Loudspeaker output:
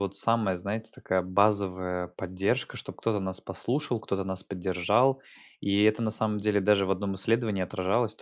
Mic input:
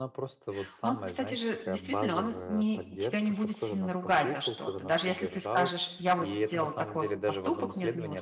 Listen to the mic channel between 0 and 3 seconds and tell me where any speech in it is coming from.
both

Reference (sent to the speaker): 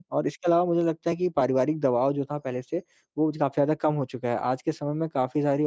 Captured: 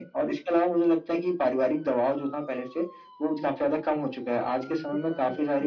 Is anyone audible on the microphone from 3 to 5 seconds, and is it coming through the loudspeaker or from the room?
both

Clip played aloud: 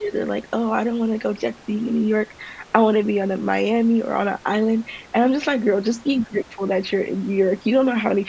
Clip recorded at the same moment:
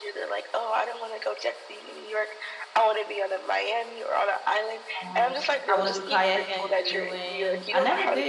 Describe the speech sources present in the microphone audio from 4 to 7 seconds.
both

